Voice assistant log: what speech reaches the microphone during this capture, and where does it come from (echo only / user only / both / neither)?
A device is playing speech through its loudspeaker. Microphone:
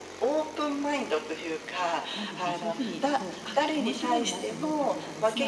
both